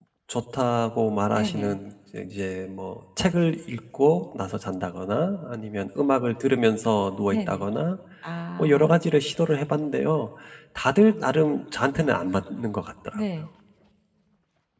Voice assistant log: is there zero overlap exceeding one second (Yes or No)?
Yes